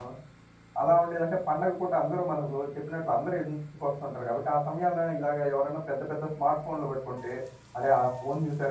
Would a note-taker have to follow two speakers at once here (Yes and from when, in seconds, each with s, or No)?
No